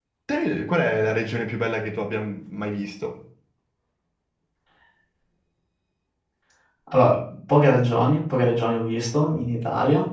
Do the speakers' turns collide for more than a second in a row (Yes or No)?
No